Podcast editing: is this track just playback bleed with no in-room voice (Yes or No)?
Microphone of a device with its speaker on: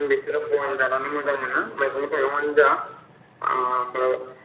Yes